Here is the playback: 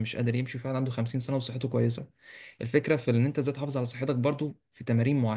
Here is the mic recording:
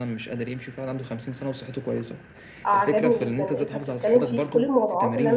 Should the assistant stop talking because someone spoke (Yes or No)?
Yes